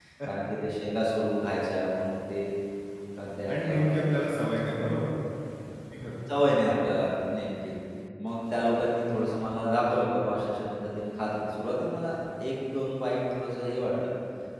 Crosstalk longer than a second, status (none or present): none